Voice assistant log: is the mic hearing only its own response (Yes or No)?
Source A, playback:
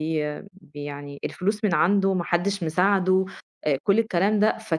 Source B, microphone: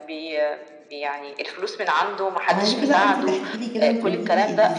No